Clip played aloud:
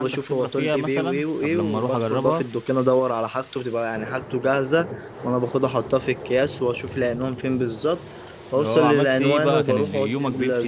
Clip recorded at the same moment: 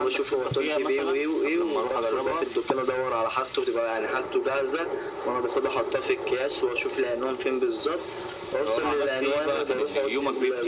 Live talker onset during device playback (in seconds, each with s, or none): none